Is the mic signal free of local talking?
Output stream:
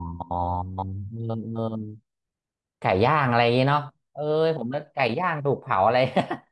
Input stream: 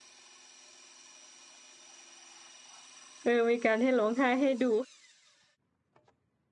No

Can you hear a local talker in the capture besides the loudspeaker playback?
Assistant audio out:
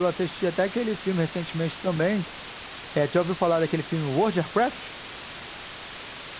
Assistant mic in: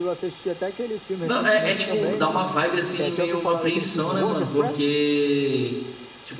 Yes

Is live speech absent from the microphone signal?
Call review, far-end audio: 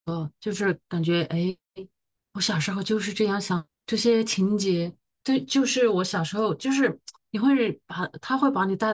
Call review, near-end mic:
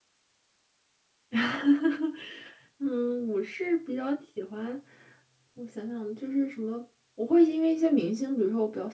No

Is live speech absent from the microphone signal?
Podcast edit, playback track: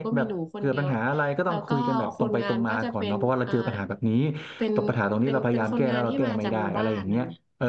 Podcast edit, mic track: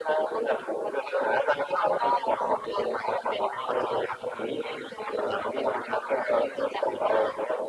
Yes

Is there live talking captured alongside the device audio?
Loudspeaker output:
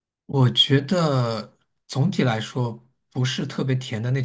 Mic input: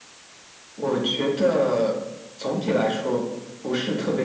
No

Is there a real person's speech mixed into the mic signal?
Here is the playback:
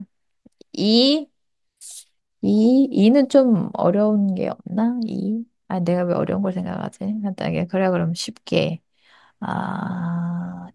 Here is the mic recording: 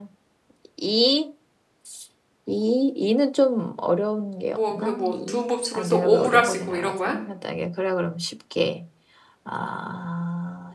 Yes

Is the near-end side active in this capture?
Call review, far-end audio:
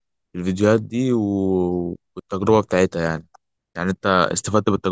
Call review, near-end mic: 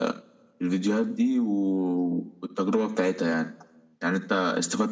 No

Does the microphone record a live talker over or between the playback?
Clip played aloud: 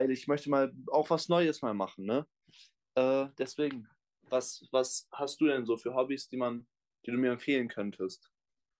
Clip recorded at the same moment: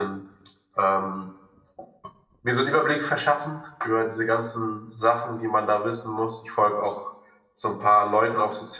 Yes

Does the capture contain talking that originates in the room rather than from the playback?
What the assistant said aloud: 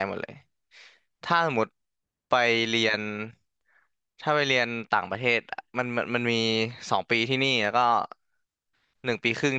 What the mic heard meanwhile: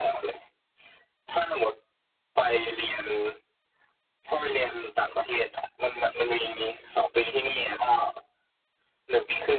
No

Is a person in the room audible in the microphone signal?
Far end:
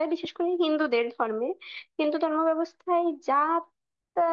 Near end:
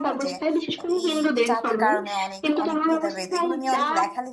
Yes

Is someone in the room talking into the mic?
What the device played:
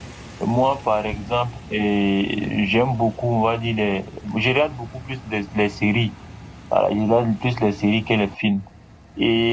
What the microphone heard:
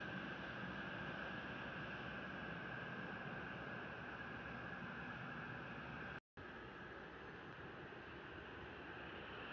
No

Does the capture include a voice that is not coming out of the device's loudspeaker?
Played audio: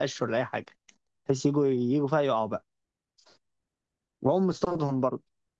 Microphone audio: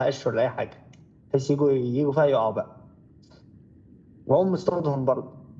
No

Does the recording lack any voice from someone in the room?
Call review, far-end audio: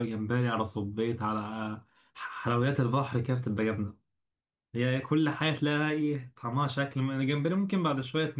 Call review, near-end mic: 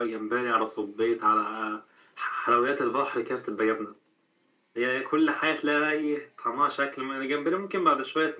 Yes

